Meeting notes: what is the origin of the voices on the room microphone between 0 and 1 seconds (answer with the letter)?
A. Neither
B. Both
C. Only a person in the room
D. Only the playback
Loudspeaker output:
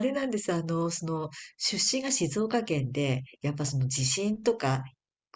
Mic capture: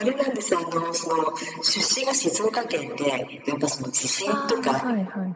D